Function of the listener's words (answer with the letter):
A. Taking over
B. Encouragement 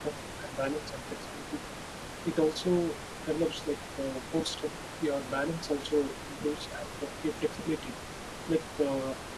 B